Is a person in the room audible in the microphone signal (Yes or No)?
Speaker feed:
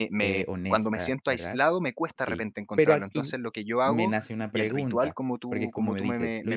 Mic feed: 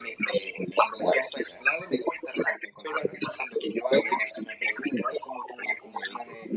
No